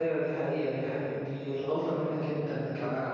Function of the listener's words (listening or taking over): taking over